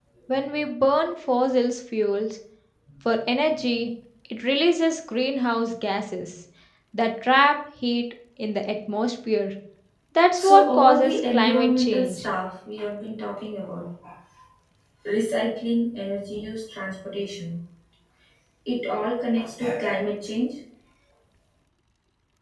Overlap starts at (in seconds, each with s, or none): 10.3 s